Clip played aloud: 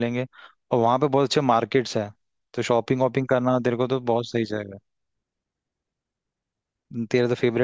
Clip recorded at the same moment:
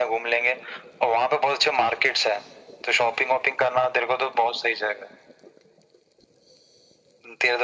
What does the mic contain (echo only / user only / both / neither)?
echo only